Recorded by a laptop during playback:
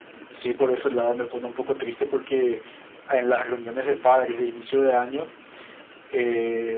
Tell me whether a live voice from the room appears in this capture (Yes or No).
No